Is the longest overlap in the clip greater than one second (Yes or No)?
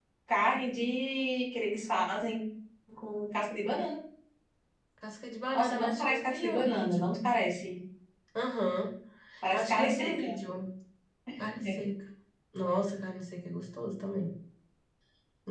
Yes